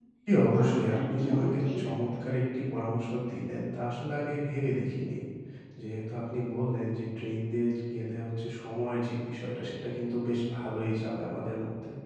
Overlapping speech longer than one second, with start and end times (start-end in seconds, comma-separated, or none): 0.5-2.1